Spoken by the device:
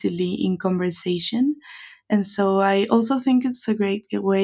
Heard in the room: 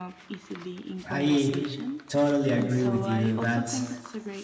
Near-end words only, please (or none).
I totally agree with you. That's